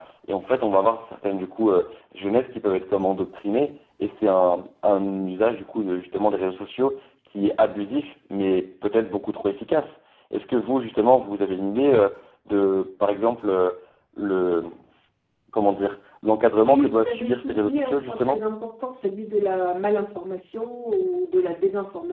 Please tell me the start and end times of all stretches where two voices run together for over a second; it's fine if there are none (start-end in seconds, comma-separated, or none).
16.6-18.4